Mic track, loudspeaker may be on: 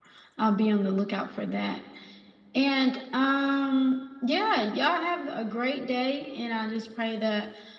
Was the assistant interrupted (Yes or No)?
Yes